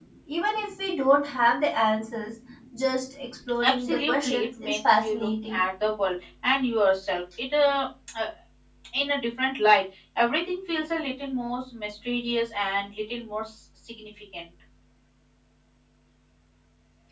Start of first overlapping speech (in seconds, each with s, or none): 3.6 s